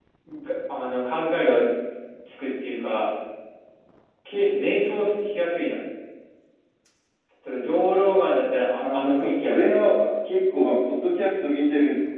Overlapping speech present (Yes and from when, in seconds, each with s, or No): Yes, from 8.8 s